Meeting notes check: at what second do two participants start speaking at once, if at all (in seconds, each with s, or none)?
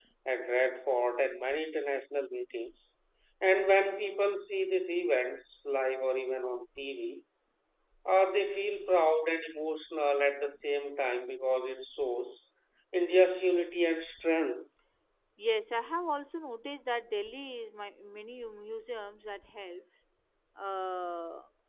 none